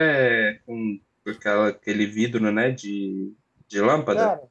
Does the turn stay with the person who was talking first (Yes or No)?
No